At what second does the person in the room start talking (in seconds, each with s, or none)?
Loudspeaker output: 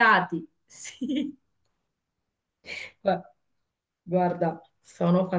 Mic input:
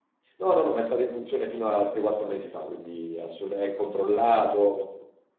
0.4 s